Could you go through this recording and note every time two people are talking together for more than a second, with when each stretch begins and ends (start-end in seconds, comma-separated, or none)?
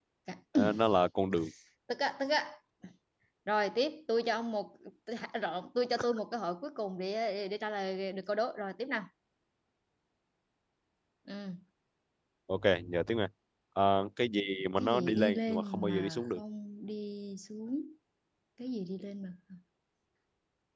14.8-16.4